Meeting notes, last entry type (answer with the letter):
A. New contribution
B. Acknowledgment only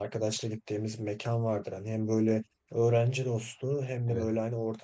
B